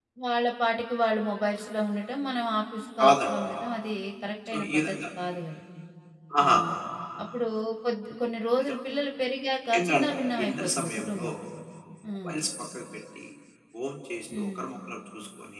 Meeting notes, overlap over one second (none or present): present